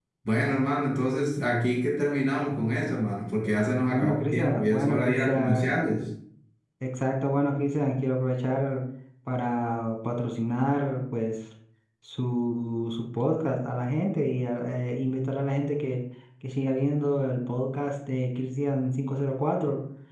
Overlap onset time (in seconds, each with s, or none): 3.9 s